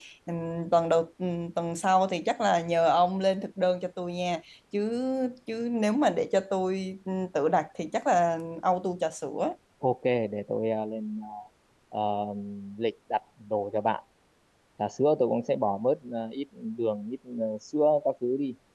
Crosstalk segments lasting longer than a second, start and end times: none

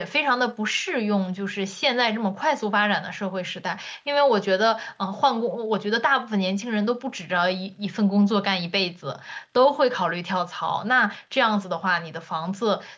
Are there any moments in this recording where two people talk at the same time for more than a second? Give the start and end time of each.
none

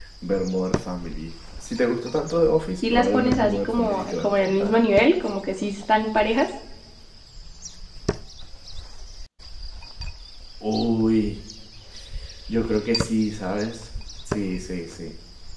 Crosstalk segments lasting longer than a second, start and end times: 2.9-4.8

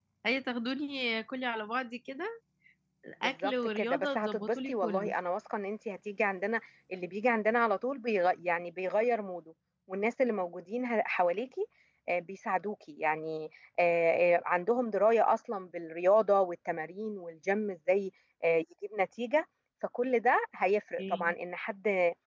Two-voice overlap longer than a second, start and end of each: 3.2-5.1

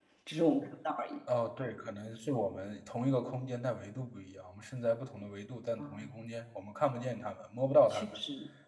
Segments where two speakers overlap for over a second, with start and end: none

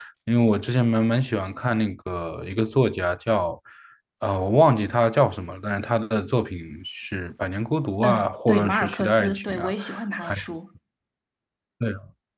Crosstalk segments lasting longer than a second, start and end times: 8.0-9.7

